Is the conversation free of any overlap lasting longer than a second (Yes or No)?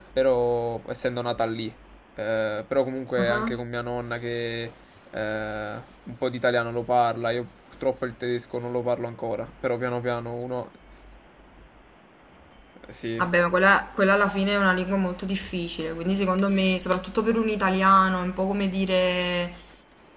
Yes